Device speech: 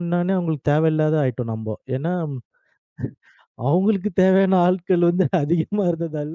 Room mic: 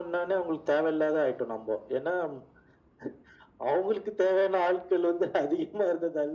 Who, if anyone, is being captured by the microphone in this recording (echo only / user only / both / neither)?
echo only